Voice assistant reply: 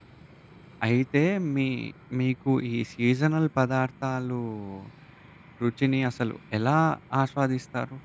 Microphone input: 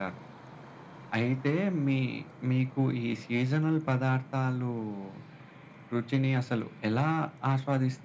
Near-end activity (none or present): none